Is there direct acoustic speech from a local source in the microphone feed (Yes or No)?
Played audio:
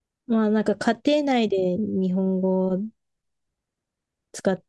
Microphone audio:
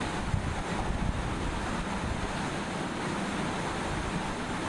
No